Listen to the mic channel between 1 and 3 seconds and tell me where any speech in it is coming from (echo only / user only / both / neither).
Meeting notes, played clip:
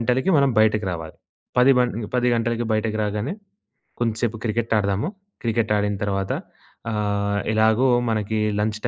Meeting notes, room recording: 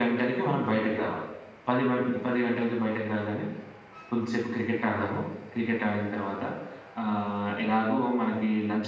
echo only